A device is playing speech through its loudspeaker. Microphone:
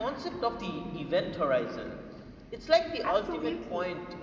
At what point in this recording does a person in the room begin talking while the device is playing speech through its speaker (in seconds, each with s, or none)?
3.0 s